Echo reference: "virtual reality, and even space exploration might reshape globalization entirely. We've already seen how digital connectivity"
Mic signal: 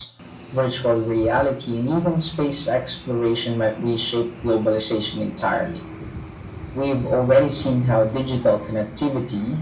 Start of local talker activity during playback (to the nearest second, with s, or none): none